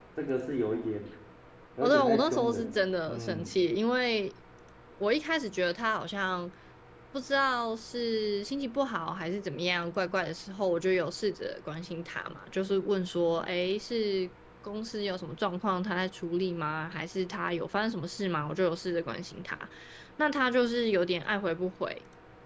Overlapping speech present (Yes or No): Yes